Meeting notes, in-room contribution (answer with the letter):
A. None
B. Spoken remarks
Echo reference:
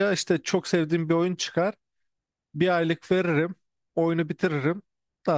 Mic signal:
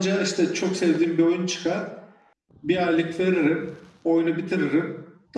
A